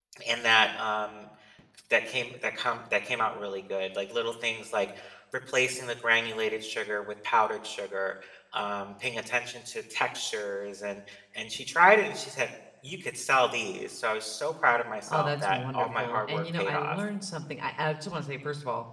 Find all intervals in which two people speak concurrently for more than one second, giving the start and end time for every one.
15.1-17.0

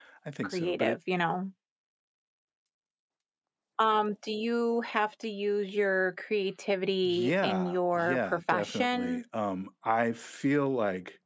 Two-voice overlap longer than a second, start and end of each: 7.0-9.2

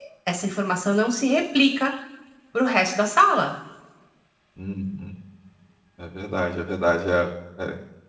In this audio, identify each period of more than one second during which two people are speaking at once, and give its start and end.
none

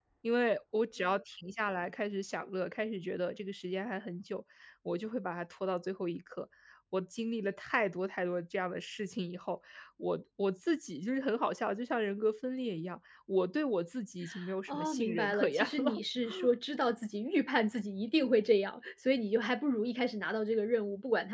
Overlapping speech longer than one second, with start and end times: 14.7-16.0

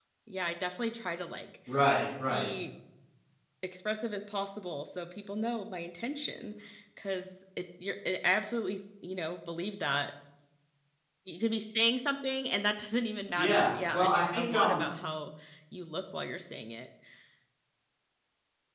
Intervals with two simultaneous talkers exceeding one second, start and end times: 13.4-14.8

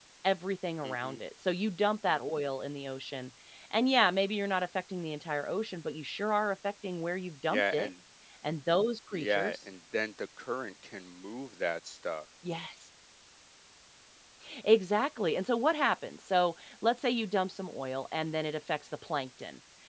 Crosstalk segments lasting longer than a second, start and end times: none

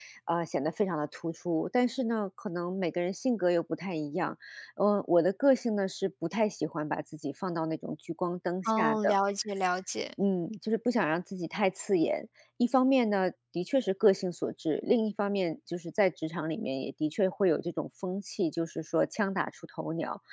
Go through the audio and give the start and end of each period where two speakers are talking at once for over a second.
none

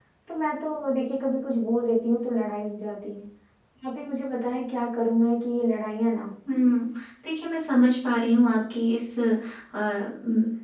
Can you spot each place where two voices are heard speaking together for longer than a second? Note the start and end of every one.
none

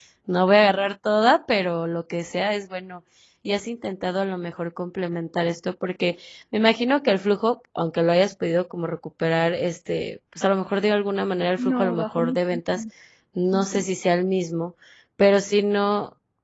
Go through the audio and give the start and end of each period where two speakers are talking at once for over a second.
11.6-12.8

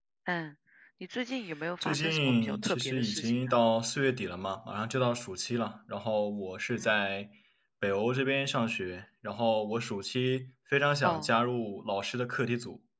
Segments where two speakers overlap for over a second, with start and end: 1.8-3.6

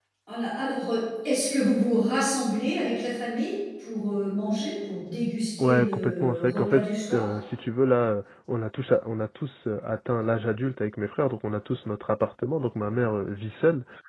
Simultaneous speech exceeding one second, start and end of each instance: 5.6-7.3

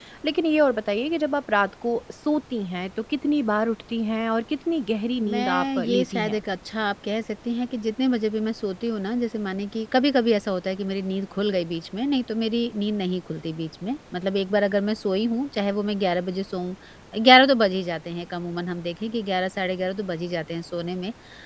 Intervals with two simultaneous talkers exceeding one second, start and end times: 5.2-6.4

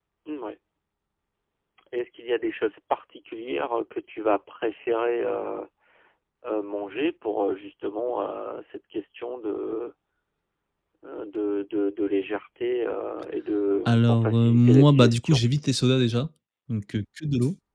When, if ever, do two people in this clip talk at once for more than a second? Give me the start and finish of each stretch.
13.9-15.4

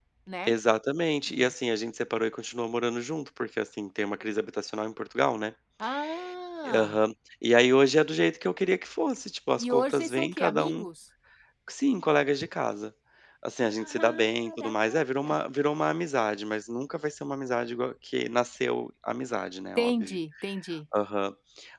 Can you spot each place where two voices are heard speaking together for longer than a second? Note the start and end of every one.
9.6-10.8, 13.6-15.3

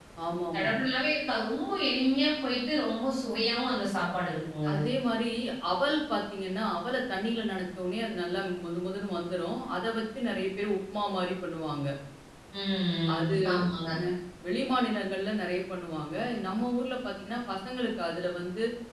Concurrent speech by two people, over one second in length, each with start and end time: none

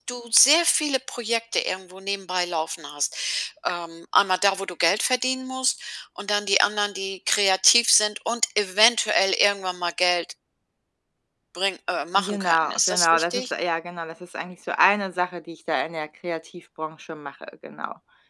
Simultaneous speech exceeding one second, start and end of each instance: 12.2-13.5

